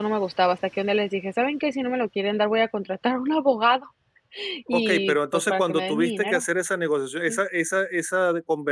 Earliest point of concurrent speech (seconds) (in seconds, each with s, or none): 4.7 s